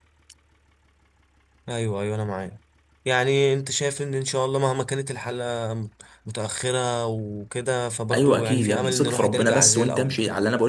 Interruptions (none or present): present